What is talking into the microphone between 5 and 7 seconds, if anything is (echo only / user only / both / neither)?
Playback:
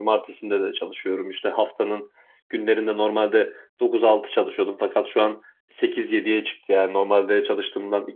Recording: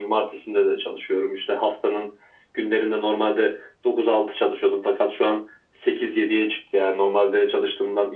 echo only